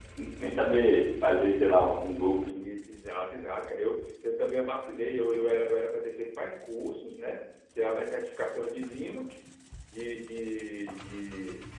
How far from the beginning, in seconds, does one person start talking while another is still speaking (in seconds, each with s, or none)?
none